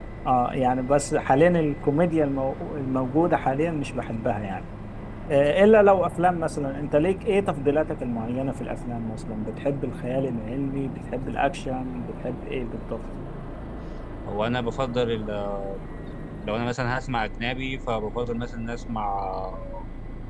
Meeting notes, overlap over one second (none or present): none